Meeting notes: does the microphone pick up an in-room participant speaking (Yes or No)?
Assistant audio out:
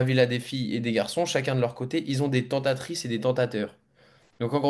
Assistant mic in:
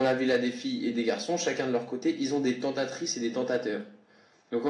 No